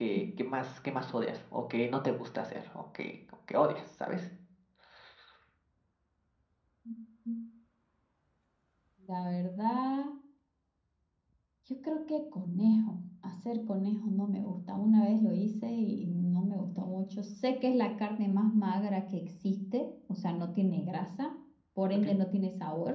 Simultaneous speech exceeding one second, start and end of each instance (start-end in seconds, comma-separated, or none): none